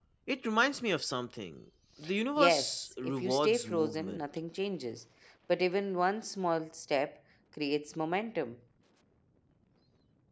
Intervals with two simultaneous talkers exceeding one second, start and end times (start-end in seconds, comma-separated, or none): 2.4-4.2